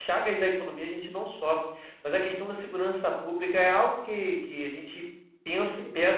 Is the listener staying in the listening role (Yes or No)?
Yes